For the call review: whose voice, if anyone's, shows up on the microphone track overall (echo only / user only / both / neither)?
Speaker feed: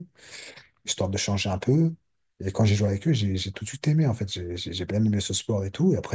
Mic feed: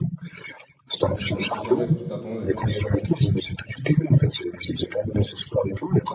both